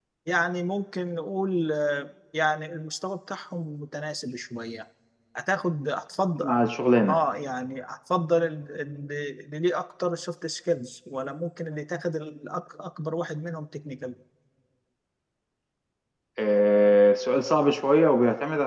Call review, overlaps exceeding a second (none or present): none